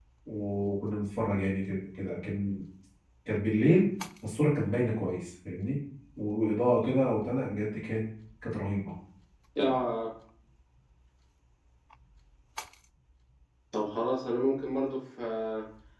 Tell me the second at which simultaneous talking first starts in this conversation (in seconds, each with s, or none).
none